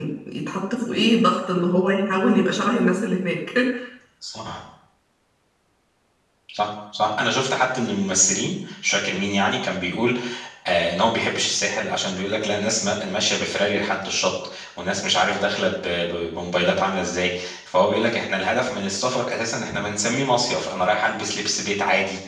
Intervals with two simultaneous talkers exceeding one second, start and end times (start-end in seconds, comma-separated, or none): none